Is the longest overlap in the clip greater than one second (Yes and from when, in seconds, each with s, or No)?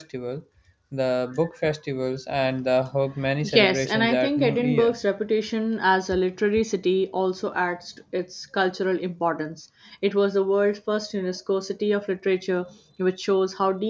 Yes, from 3.4 s